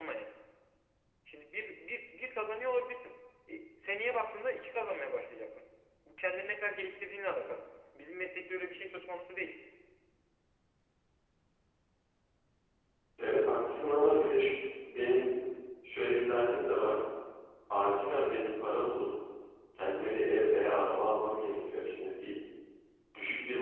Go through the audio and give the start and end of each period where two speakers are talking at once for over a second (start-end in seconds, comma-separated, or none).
none